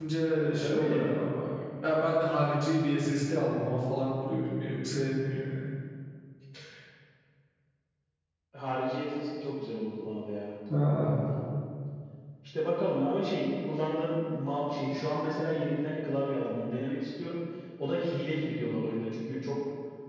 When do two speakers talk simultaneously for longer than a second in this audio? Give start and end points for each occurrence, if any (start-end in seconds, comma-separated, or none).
none